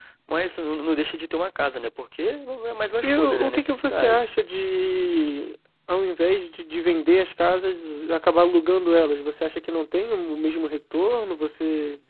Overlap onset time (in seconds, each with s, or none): 3.0 s